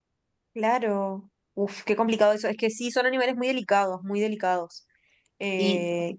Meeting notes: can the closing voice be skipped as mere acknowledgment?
No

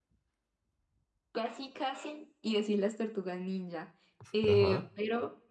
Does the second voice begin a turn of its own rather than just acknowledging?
No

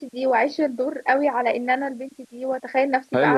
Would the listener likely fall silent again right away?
No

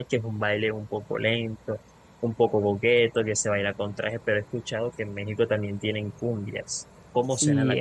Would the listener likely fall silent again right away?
No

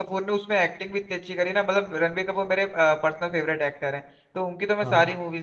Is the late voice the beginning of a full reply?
No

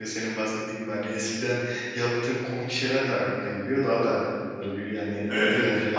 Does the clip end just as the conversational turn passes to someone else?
Yes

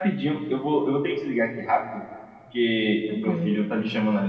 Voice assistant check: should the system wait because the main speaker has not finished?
Yes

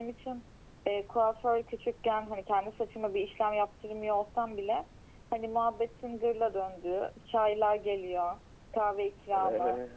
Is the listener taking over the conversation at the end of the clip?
No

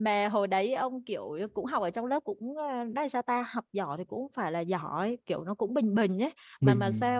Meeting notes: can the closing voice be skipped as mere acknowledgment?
No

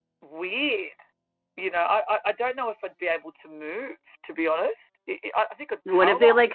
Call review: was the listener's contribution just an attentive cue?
No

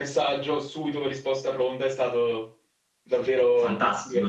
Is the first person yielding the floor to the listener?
Yes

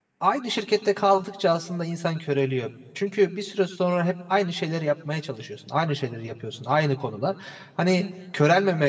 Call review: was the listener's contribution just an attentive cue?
Yes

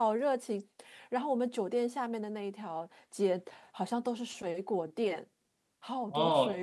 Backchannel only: No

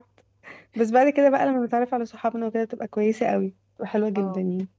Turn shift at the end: Yes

